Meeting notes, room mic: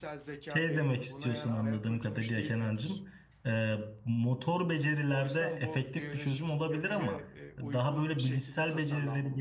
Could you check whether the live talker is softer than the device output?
No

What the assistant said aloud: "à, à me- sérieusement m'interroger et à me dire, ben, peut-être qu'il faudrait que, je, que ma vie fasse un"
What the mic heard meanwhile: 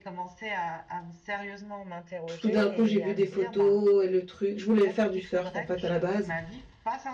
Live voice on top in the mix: Yes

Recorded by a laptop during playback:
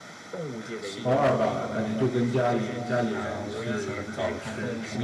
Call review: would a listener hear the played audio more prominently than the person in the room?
No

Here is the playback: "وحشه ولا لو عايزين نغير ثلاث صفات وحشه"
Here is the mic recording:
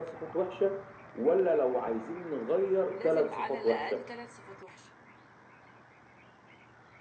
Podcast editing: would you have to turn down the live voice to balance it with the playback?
No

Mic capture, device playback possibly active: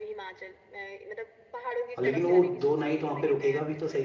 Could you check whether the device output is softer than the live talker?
Yes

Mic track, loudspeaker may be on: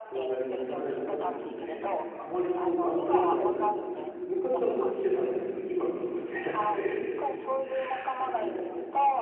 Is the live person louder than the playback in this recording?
Yes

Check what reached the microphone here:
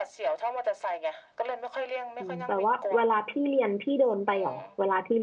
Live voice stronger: Yes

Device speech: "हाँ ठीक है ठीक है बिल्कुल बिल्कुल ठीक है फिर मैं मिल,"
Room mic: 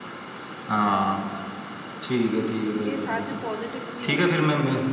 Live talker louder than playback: No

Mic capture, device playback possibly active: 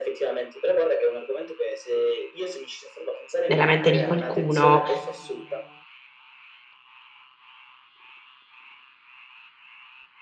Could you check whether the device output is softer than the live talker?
Yes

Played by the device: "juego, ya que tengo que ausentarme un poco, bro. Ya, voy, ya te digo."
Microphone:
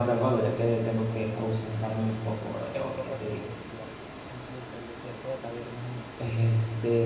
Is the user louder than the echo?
No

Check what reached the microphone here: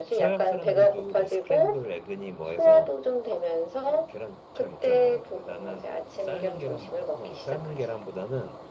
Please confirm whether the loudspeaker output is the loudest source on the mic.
Yes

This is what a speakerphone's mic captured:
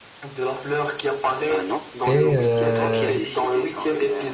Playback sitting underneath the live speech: Yes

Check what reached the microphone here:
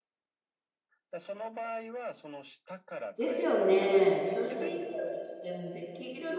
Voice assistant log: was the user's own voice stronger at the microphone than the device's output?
Yes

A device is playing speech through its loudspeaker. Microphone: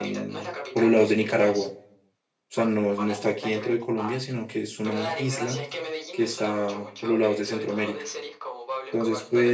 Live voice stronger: Yes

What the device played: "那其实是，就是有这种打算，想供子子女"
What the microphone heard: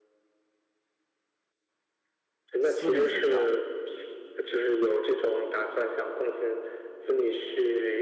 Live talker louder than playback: No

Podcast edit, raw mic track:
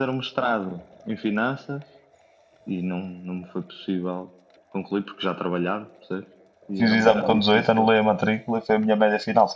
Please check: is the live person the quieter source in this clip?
No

